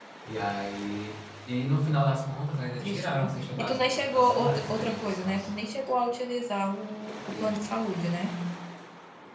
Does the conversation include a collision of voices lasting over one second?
Yes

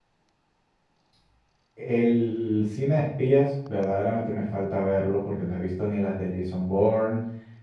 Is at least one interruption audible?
No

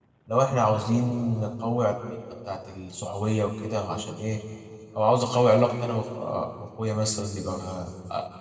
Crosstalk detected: No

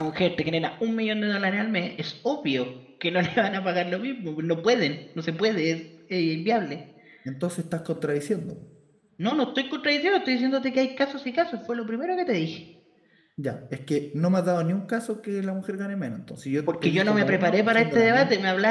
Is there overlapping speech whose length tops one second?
Yes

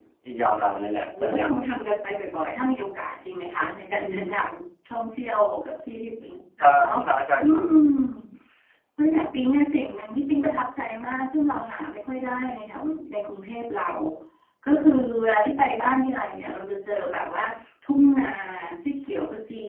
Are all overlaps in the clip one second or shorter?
Yes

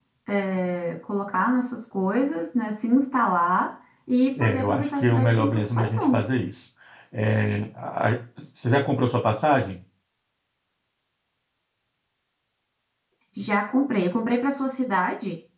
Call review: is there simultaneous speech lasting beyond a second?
Yes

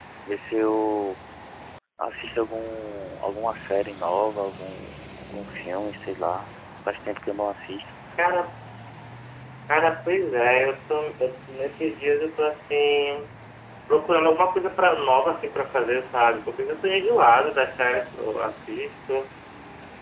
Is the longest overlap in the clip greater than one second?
No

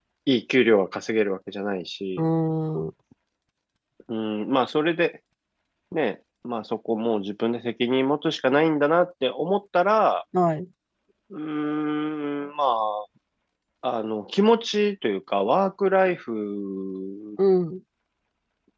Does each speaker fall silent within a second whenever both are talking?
Yes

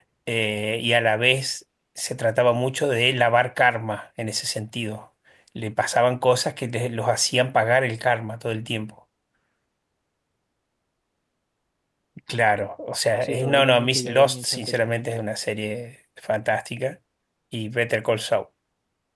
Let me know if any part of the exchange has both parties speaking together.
Yes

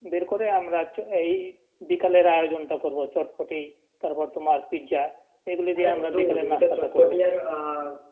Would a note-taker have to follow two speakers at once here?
Yes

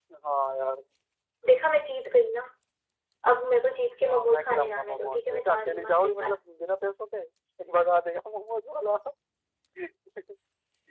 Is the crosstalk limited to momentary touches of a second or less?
No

